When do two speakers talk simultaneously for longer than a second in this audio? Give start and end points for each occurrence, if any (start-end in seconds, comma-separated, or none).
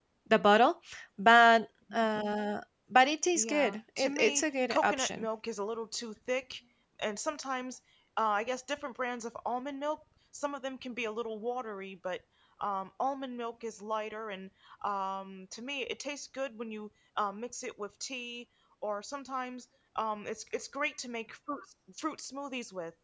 3.4-5.3